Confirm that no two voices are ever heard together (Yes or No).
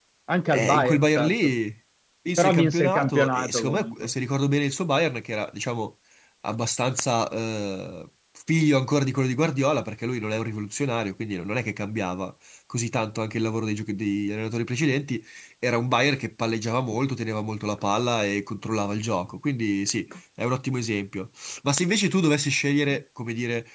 No